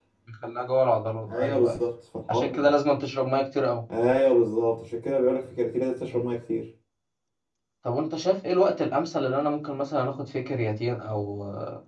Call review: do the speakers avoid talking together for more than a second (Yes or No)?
Yes